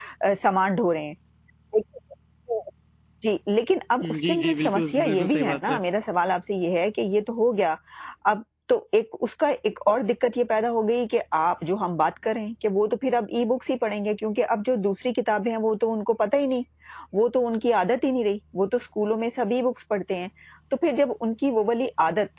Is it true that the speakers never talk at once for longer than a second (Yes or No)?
No